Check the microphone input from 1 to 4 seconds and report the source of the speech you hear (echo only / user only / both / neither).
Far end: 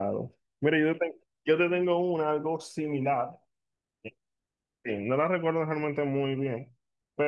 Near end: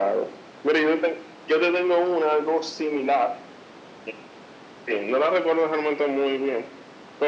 echo only